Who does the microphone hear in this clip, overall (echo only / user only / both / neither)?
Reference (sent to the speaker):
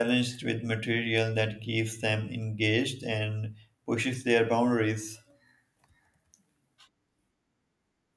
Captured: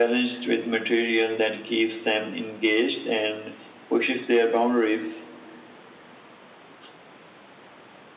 echo only